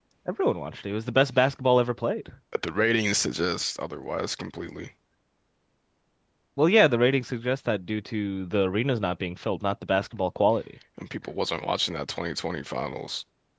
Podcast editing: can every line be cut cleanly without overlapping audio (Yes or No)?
Yes